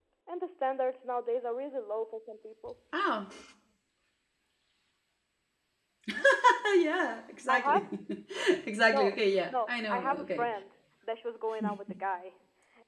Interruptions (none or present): present